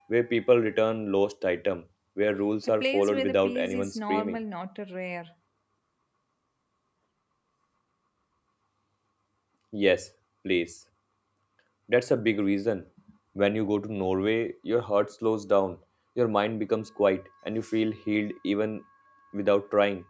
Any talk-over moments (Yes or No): Yes